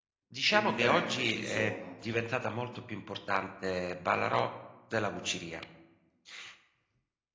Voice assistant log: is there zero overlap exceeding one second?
No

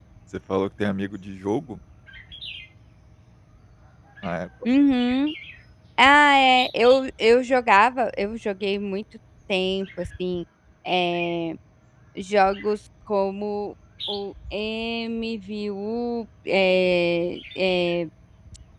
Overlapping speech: No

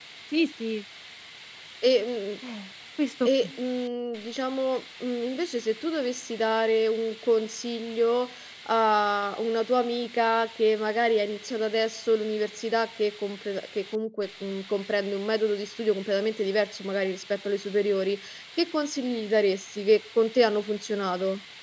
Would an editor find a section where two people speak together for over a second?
No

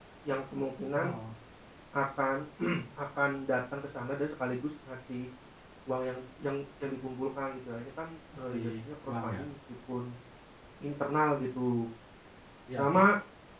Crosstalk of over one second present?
No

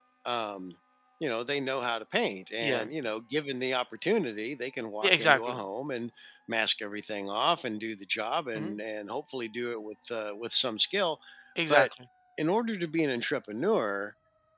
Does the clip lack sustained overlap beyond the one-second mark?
Yes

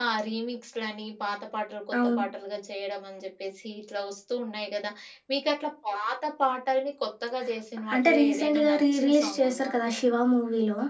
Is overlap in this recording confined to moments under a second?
No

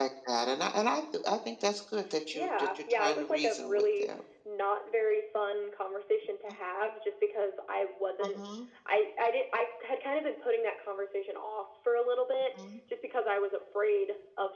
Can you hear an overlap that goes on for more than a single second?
Yes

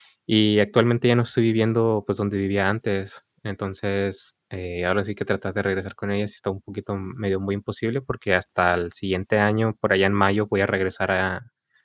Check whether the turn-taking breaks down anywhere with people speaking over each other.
No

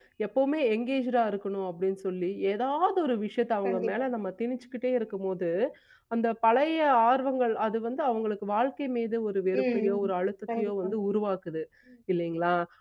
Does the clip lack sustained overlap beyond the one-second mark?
Yes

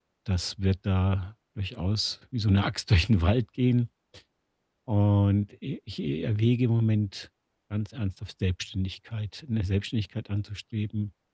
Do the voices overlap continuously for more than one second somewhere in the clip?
No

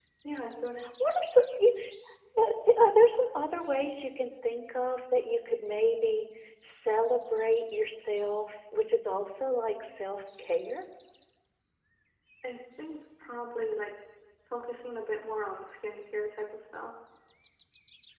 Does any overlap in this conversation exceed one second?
No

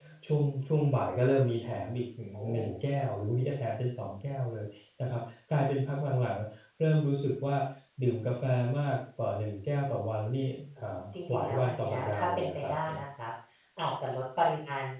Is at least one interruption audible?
Yes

